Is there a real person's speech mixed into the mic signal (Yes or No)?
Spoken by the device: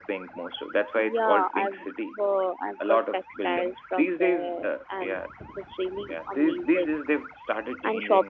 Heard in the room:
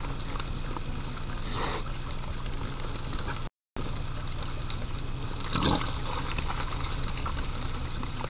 No